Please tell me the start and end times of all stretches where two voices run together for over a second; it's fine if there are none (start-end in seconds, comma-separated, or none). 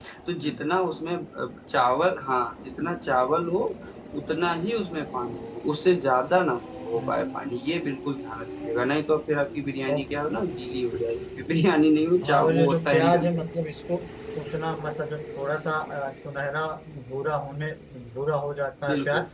12.2-13.5